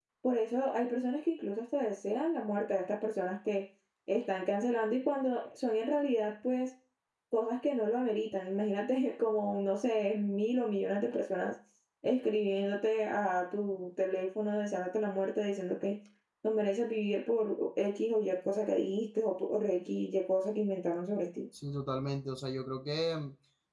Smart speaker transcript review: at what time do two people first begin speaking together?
none

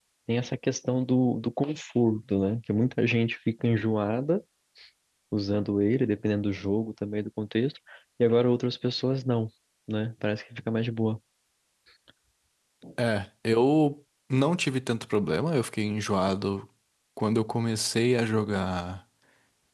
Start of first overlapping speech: none

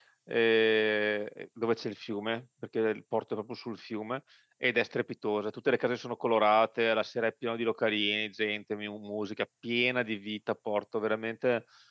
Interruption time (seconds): none

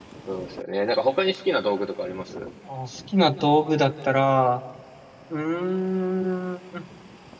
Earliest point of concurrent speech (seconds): none

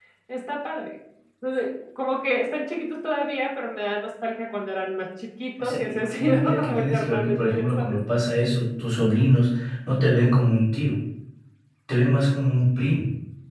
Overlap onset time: 5.6 s

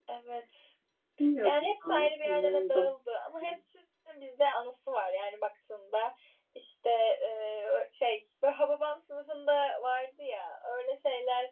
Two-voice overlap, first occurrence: 1.4 s

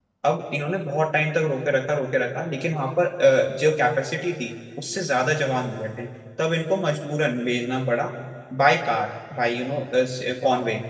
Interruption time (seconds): none

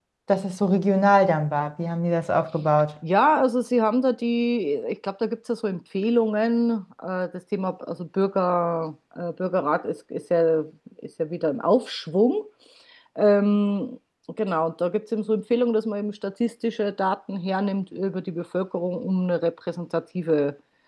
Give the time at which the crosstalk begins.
none

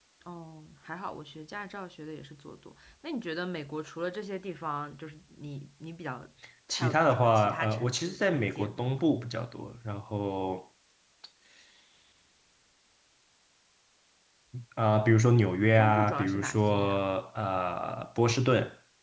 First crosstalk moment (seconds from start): 6.7 s

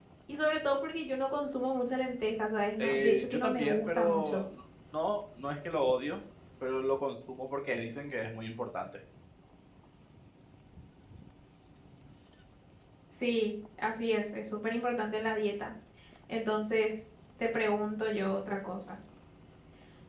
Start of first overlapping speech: 2.8 s

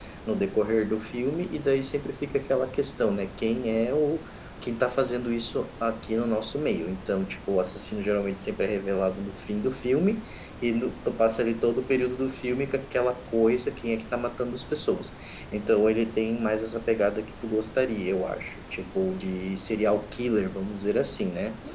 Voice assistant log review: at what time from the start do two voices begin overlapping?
none

